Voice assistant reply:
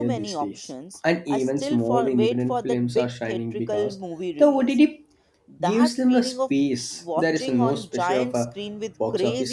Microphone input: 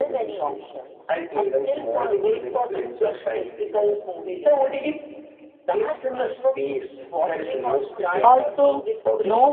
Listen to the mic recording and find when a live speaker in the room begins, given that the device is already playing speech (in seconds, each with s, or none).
8.3 s